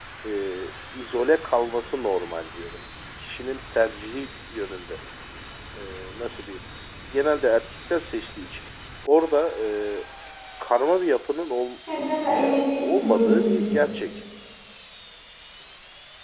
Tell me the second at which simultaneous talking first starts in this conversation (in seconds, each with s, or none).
12.4 s